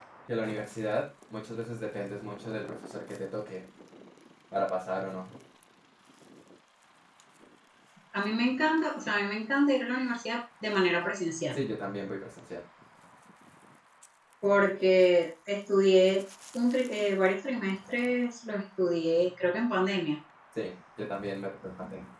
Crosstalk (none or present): none